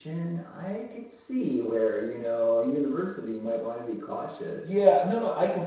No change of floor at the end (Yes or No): No